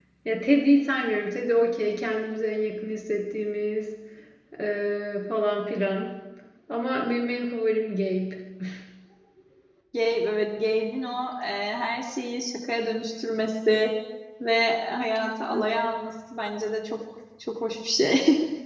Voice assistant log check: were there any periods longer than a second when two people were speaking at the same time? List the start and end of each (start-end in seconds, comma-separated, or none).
none